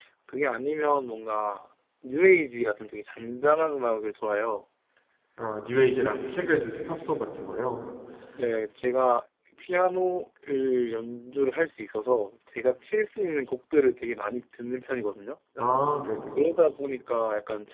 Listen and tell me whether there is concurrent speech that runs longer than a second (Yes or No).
No